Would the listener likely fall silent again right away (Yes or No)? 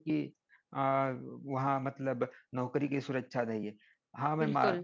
Yes